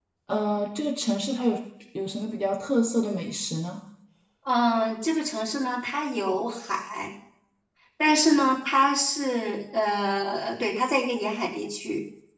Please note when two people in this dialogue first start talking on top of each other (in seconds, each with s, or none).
none